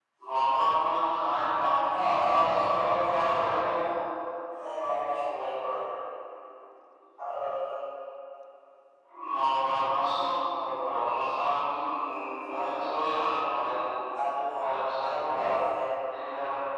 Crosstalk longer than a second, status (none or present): present